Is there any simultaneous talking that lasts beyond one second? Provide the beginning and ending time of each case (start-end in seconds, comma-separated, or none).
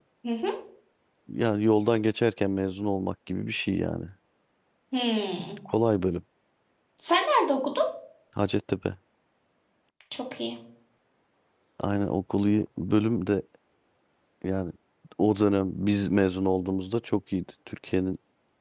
none